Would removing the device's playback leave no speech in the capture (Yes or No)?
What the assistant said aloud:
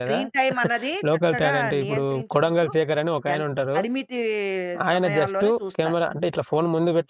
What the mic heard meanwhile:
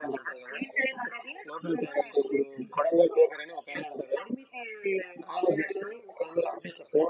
Yes